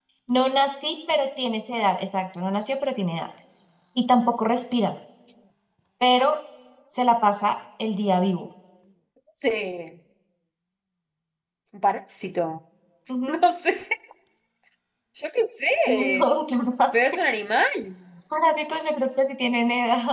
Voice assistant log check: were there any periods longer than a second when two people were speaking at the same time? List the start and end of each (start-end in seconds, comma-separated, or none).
none